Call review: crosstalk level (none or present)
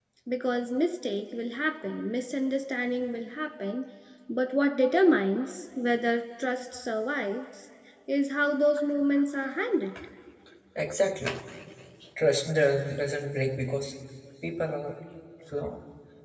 none